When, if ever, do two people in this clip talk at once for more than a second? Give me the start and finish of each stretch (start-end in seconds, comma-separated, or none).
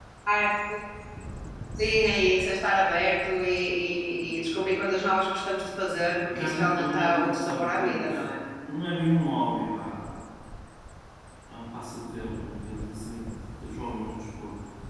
6.1-8.2